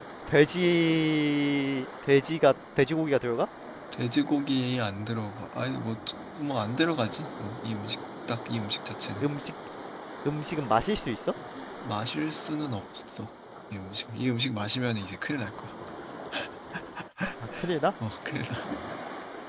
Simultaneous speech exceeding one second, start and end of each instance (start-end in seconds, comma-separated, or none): none